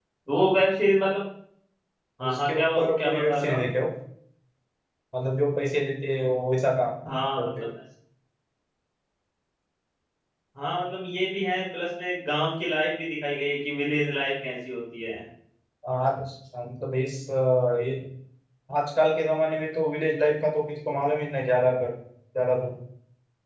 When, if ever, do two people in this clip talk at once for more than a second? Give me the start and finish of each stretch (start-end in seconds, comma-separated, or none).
2.2-3.6